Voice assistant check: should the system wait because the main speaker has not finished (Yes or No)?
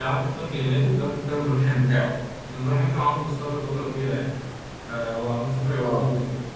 Yes